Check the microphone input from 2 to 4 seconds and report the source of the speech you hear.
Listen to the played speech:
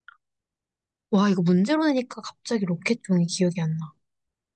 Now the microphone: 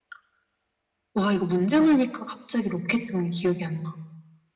echo only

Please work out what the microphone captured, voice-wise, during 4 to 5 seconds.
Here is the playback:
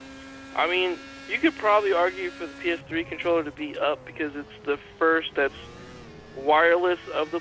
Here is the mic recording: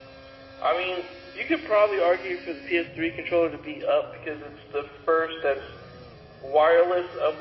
echo only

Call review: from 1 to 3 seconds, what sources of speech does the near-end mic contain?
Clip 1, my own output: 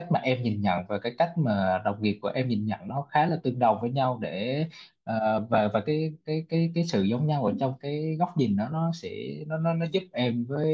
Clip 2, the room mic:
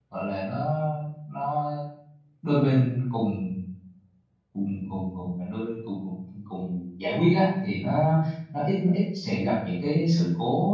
user only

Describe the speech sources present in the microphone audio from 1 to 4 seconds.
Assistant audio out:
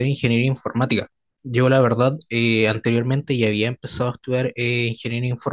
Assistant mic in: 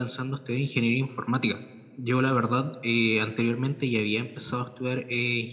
echo only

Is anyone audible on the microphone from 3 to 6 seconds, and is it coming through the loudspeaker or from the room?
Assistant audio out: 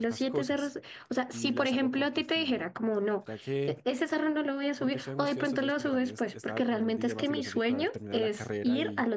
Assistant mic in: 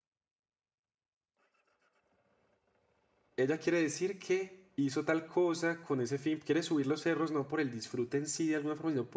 user only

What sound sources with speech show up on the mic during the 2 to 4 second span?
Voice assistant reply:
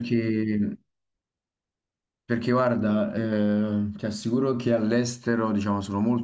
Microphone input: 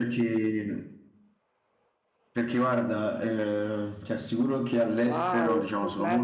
echo only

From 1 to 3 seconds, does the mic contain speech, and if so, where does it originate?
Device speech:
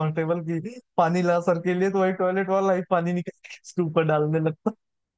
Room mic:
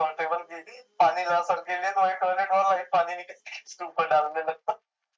echo only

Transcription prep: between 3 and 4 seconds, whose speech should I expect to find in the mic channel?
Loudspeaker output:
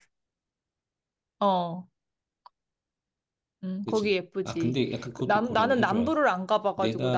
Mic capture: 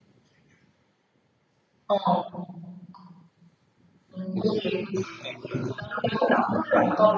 neither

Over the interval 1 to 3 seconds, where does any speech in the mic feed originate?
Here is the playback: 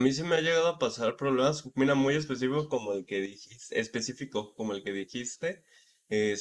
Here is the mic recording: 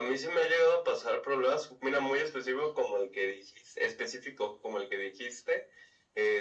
echo only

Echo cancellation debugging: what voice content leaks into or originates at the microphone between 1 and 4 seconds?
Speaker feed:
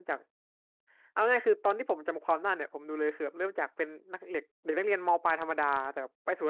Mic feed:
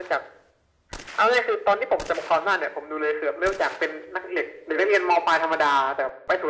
echo only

